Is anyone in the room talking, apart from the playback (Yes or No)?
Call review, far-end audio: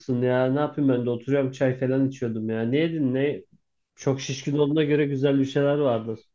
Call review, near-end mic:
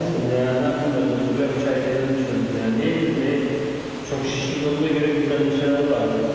No